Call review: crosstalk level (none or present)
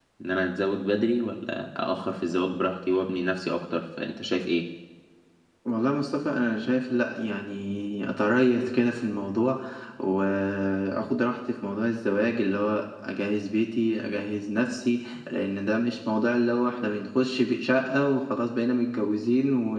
none